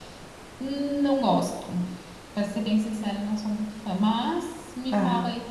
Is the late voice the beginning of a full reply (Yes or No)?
Yes